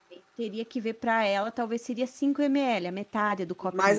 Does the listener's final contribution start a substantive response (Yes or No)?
Yes